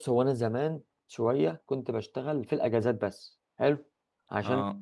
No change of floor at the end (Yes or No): Yes